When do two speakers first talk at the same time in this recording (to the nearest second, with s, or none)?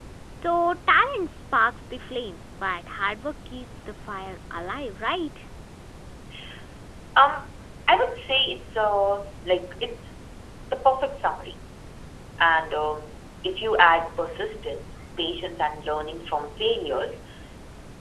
none